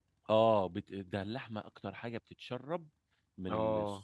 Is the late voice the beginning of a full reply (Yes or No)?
No